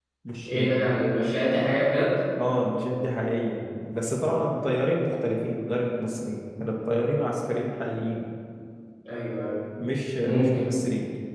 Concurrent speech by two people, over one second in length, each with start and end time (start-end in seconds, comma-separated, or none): none